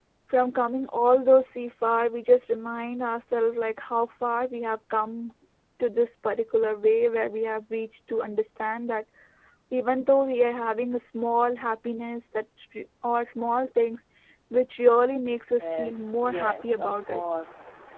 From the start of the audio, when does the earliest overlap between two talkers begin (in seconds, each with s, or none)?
15.6 s